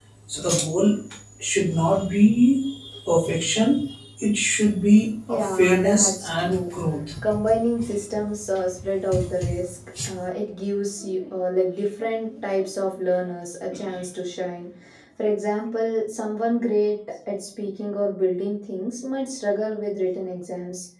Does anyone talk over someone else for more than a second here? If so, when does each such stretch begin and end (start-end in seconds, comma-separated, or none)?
5.3-6.6